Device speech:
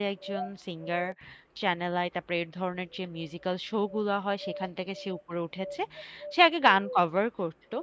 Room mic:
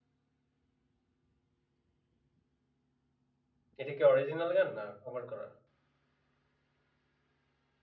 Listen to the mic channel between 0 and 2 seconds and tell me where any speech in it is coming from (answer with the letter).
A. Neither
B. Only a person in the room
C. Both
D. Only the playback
A